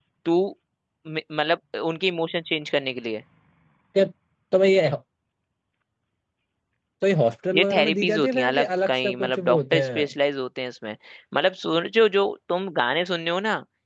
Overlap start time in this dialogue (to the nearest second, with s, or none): 8 s